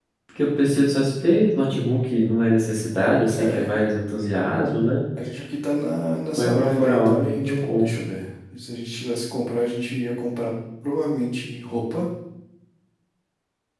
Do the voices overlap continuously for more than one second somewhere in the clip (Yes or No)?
Yes